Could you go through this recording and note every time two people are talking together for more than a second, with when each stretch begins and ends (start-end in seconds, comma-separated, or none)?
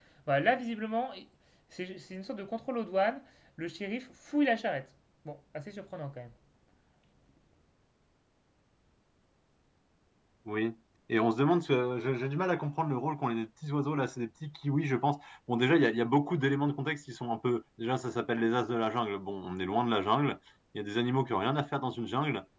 none